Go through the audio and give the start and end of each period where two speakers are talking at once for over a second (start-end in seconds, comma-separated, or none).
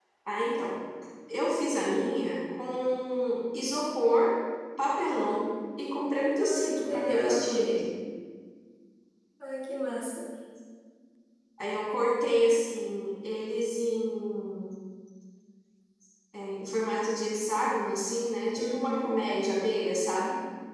6.4-7.6